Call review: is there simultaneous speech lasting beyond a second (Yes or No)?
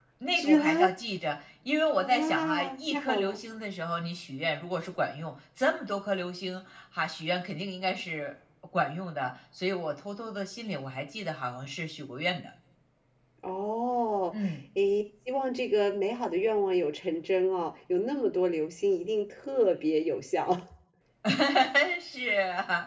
Yes